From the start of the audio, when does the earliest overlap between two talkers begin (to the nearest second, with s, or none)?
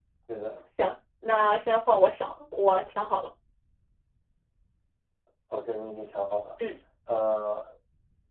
none